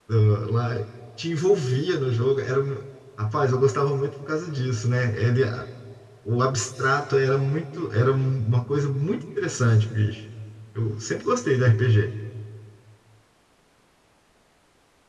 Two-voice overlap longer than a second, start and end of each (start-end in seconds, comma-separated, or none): none